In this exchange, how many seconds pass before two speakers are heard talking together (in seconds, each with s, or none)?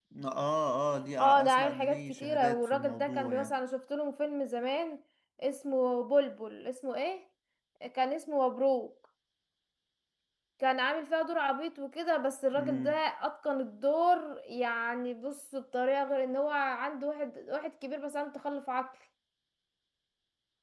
1.2 s